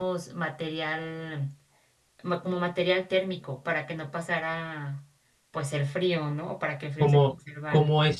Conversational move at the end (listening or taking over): taking over